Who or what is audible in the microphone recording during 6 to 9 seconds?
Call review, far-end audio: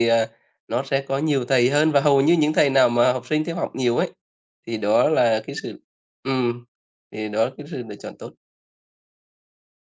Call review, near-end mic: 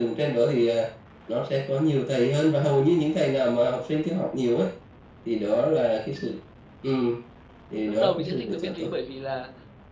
both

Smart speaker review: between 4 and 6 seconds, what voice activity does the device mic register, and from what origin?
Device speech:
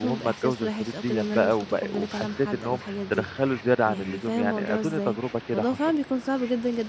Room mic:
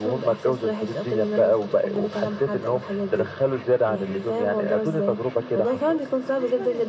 both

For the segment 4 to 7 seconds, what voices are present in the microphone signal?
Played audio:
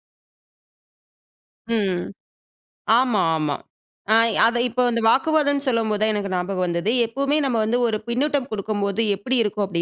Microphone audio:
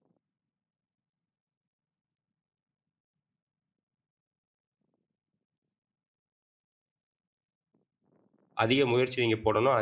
neither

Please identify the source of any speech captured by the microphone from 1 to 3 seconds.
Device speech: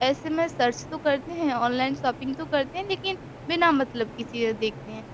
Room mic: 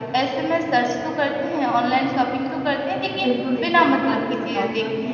echo only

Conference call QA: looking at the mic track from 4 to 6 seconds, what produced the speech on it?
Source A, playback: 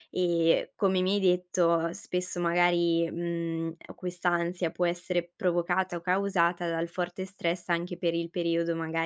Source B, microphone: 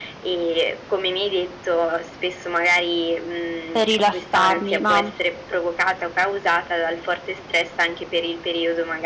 both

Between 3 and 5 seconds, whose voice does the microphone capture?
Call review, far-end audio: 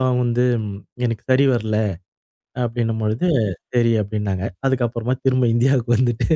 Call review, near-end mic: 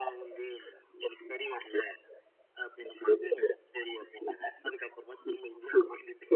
echo only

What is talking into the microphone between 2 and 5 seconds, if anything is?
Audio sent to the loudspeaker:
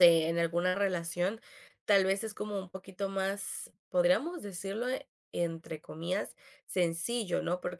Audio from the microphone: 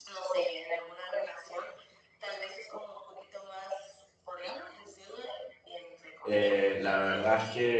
echo only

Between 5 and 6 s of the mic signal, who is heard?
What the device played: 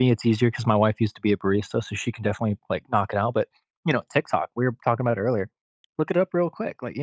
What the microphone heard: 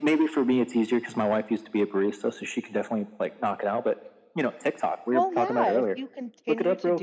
both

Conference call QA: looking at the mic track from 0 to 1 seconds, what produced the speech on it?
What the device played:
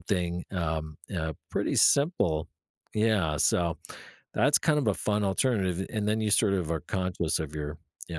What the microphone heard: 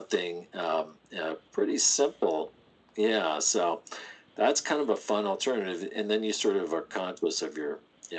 echo only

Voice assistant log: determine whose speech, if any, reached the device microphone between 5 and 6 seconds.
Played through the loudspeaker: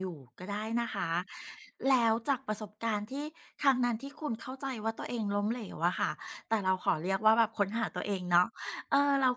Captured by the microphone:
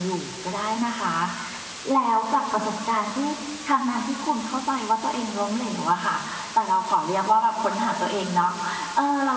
echo only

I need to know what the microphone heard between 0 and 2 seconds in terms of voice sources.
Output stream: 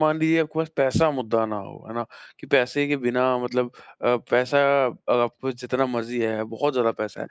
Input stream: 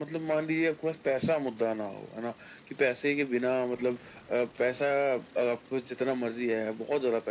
echo only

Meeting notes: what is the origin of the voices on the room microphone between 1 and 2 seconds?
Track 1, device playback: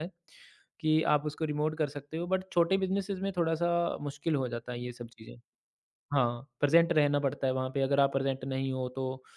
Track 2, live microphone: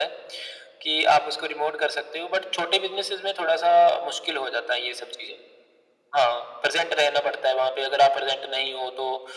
echo only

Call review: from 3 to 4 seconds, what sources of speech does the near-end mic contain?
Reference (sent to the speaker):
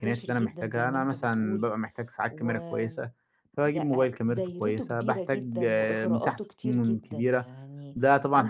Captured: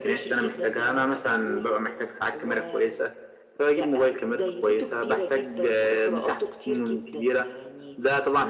echo only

